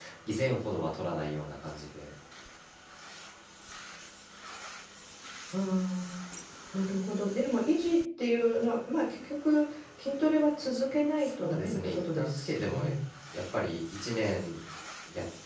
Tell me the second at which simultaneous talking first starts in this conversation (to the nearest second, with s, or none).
11 s